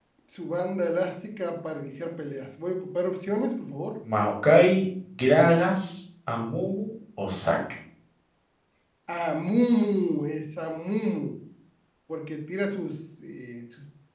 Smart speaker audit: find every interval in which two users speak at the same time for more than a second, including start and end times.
none

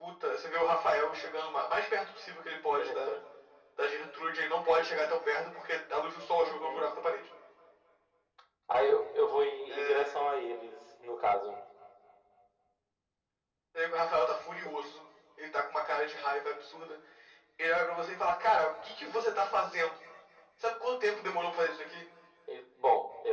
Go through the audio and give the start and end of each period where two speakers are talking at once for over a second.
none

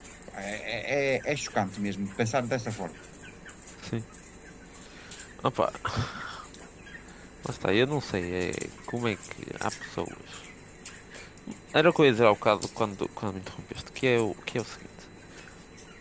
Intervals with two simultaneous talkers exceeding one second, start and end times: none

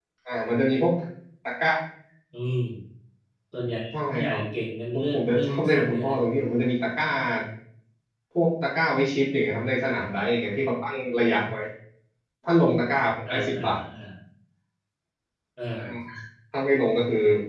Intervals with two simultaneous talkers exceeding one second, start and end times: 4.9-6.2

